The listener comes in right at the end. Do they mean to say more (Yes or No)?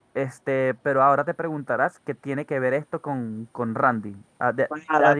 Yes